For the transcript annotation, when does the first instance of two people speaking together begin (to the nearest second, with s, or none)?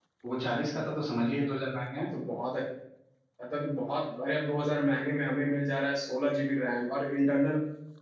none